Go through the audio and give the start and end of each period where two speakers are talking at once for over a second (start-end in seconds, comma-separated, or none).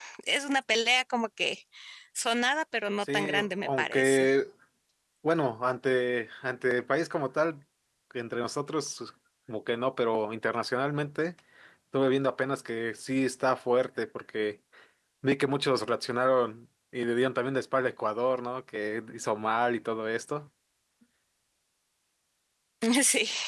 3.0-4.3